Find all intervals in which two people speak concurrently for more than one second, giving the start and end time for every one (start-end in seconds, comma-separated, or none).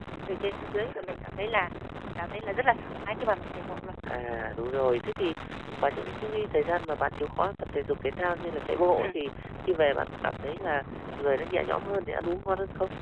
none